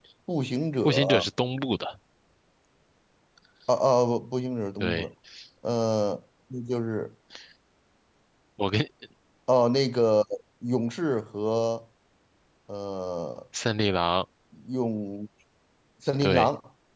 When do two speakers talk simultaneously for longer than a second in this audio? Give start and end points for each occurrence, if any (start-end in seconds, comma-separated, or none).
none